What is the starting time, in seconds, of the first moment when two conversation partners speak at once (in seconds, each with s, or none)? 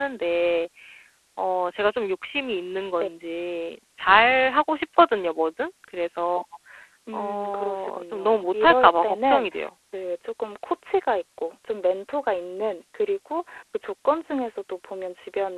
7.1 s